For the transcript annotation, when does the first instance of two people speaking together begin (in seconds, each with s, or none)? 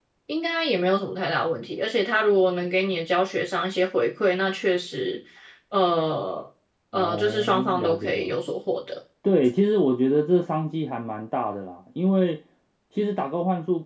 6.9 s